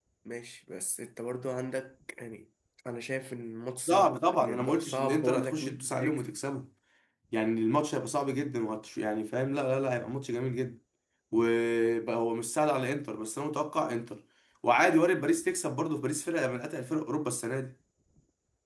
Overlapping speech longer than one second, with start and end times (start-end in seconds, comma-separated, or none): 3.9-6.3